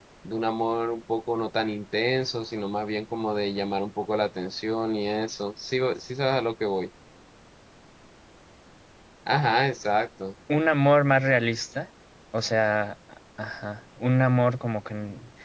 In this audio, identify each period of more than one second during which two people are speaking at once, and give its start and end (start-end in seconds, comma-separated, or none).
none